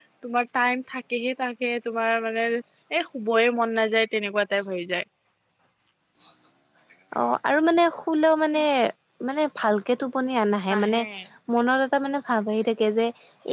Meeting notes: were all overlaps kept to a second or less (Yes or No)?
Yes